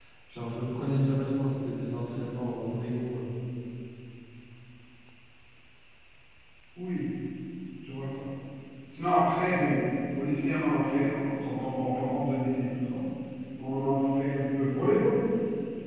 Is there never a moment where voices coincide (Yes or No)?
Yes